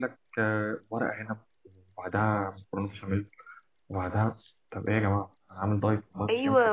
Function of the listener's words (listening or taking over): taking over